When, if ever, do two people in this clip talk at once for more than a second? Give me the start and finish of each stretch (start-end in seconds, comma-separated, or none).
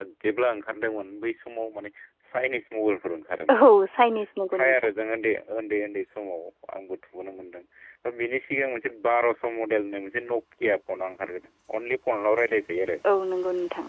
none